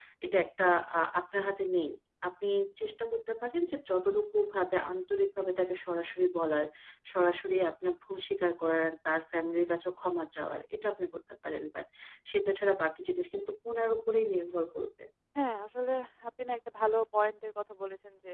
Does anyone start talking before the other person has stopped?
No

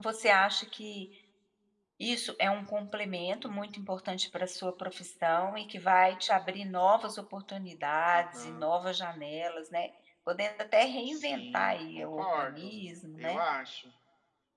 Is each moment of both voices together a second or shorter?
No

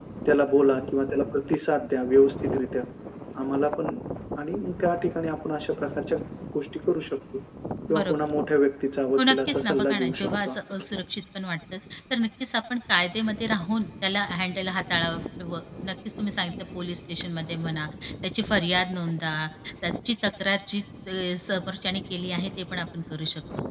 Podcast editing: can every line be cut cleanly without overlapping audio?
No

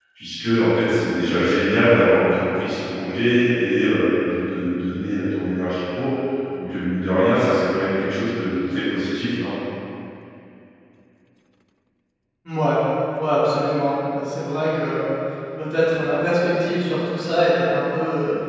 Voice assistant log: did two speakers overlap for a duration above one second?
No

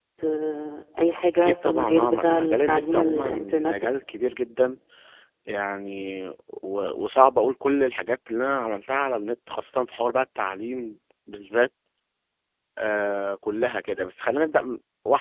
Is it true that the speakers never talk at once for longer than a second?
No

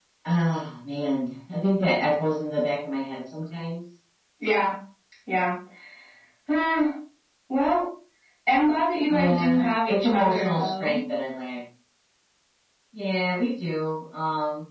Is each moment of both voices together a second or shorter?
No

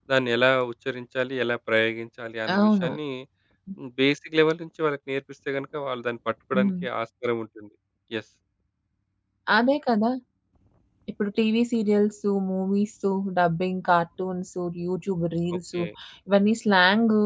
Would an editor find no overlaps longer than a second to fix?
Yes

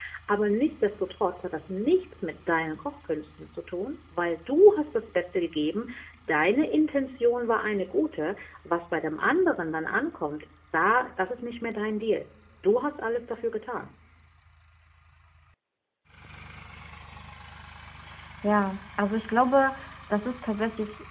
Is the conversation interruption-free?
Yes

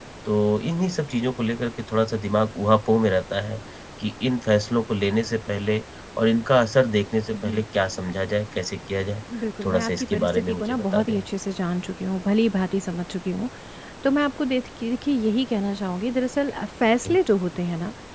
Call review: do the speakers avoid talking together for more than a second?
No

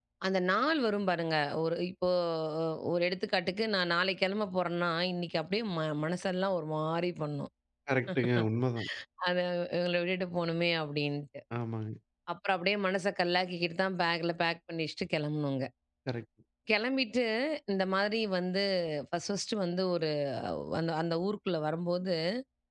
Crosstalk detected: No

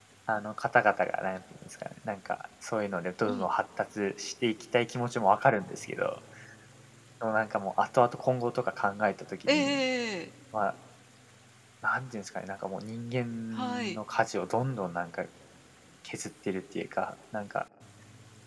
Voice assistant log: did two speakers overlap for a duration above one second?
No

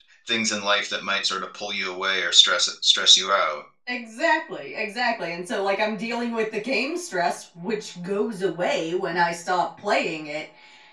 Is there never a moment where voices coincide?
Yes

